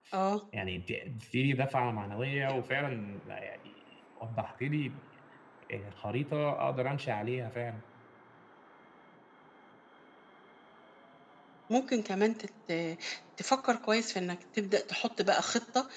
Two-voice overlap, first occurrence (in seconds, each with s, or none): none